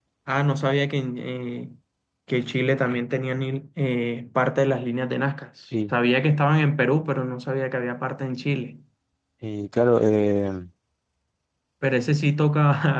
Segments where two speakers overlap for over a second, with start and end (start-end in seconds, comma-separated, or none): none